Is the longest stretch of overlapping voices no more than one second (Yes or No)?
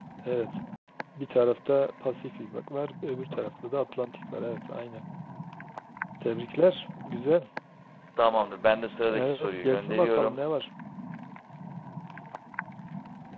No